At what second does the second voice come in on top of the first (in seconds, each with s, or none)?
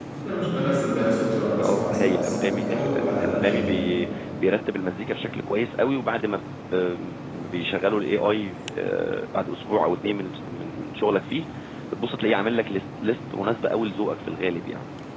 1.6 s